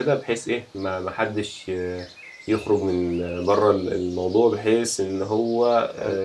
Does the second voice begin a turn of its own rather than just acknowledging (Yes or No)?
No